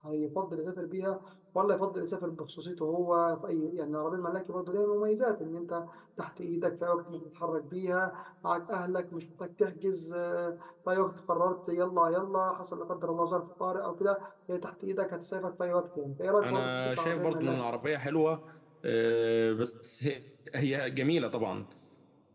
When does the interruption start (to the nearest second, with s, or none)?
16 s